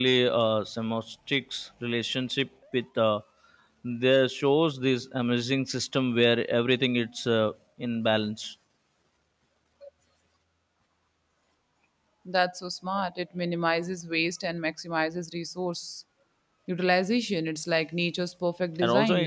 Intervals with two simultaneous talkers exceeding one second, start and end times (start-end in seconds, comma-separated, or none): none